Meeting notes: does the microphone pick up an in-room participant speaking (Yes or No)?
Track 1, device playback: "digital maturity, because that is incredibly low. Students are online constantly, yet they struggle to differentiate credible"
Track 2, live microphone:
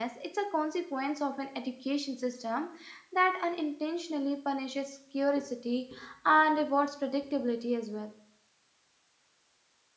Yes